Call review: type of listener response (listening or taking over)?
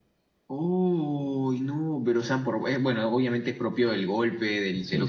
listening